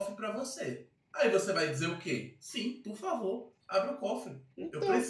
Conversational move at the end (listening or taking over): listening